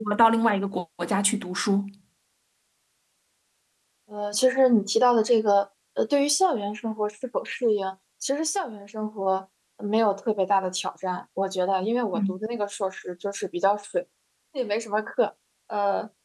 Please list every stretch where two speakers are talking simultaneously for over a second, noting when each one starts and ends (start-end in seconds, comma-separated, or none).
none